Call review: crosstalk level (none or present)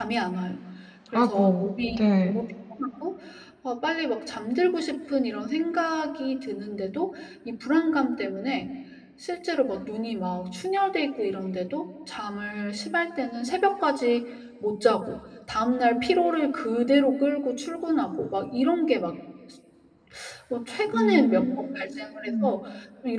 present